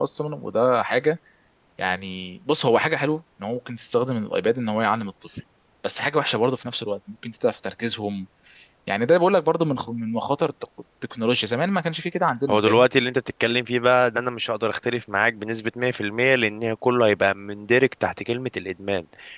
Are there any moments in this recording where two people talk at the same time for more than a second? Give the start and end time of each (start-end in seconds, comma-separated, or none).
none